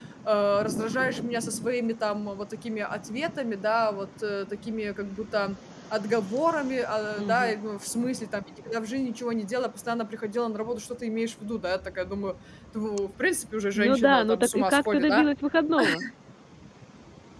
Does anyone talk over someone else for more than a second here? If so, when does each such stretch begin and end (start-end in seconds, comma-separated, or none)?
13.8-15.2